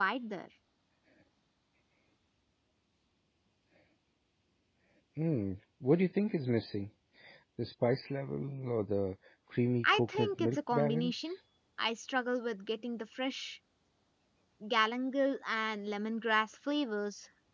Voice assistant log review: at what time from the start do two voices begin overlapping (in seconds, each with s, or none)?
9.8 s